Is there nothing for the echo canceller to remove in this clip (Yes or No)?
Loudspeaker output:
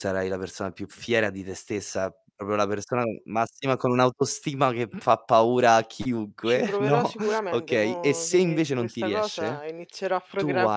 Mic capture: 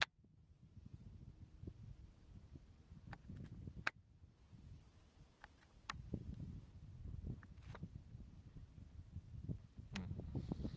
Yes